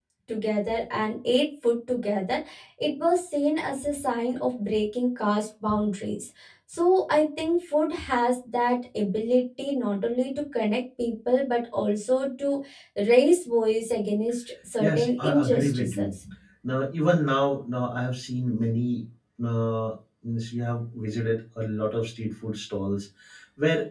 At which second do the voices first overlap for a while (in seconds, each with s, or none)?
14.8 s